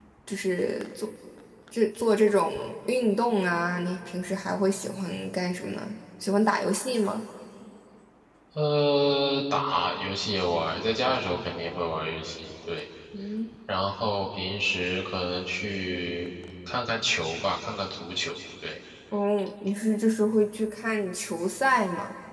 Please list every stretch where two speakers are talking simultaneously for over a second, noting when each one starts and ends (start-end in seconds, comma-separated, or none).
none